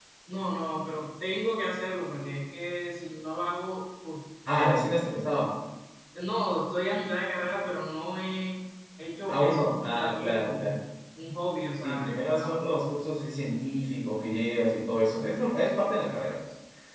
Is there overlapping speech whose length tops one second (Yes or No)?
Yes